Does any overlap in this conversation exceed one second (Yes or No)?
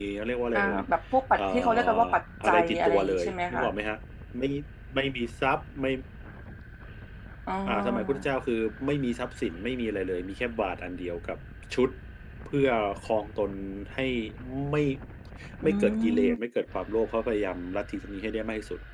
Yes